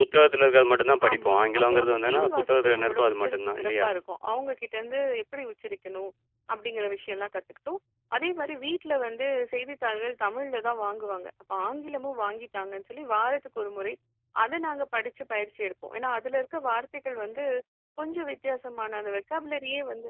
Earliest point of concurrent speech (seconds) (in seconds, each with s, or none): 1.1 s